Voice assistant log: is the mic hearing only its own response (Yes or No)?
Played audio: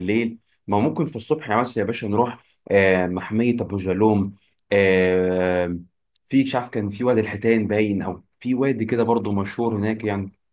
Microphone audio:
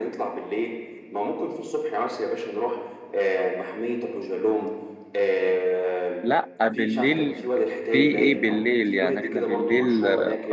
No